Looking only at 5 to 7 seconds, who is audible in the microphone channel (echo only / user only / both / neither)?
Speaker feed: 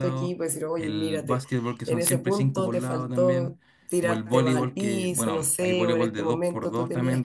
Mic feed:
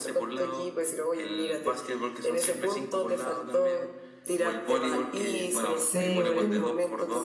both